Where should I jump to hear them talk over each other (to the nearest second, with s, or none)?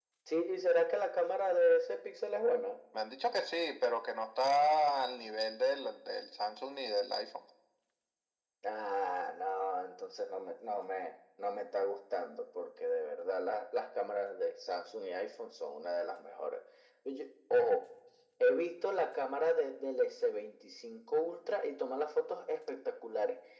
none